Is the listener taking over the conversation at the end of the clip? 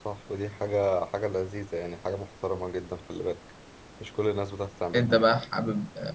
Yes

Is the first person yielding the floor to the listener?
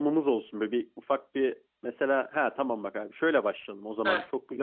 No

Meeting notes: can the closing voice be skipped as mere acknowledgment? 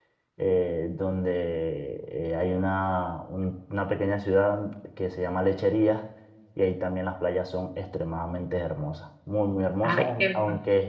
Yes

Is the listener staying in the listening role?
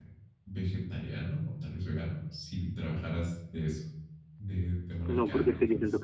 No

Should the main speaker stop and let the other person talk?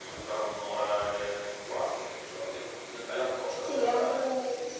Yes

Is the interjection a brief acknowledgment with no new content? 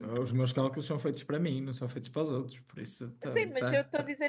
No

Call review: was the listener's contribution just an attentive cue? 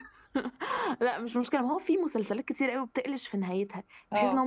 Yes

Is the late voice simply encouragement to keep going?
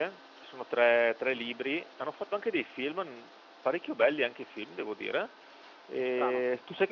Yes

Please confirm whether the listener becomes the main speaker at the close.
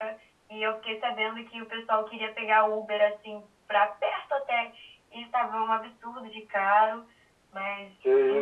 No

